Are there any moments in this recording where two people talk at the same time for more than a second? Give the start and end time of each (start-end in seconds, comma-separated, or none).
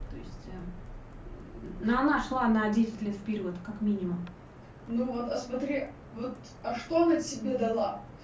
none